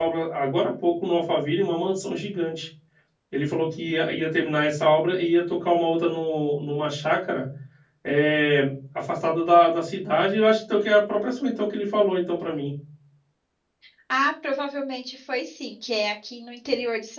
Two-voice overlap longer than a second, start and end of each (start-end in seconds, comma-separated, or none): none